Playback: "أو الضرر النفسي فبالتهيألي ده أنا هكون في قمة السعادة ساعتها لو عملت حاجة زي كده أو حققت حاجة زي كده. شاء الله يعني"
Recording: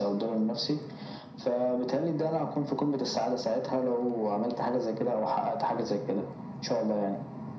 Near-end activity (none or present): none